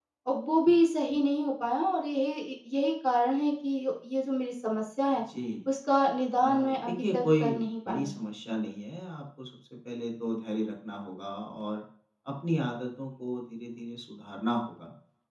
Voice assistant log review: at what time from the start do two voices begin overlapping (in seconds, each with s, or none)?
6.4 s